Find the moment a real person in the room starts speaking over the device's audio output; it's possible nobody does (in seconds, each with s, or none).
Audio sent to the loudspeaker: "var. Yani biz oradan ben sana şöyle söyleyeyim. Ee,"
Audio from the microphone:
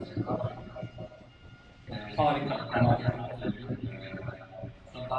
2.2 s